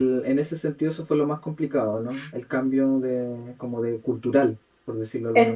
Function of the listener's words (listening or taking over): taking over